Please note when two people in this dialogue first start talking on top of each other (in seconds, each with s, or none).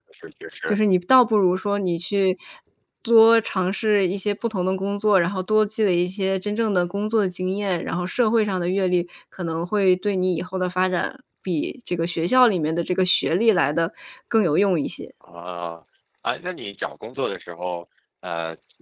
none